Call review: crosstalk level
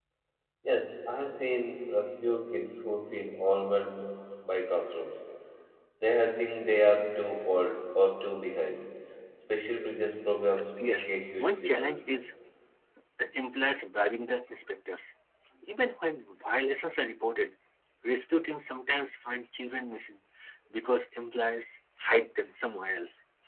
present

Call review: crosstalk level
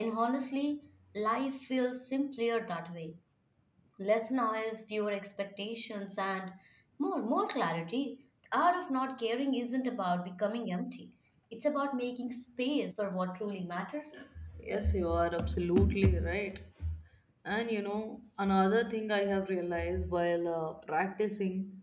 none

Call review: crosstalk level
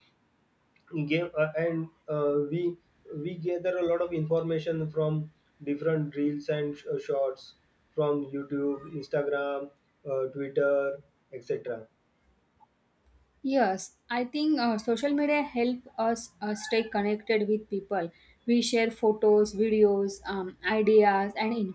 none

